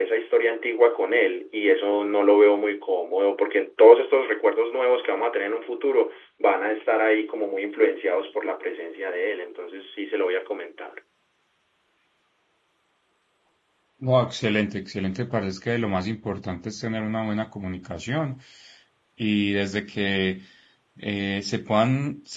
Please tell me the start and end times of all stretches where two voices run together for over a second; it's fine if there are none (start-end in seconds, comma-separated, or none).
none